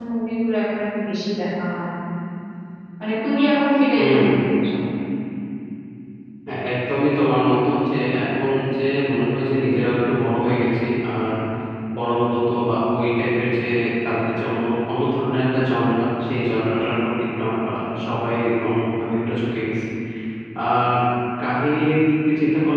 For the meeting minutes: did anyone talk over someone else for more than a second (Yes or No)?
No